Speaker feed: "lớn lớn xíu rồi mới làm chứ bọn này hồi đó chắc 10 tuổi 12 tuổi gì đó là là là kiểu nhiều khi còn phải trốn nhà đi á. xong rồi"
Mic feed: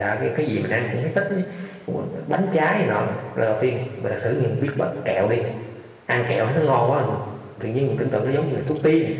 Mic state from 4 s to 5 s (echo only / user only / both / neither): user only